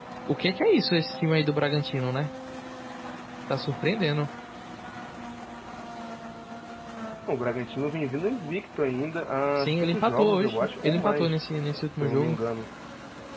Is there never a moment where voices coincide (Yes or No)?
No